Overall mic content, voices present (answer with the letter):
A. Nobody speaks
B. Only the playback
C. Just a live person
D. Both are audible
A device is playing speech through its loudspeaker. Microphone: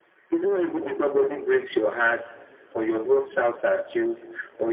B